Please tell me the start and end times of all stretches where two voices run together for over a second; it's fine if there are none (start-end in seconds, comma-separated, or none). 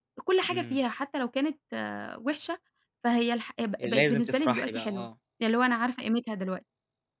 3.8-5.1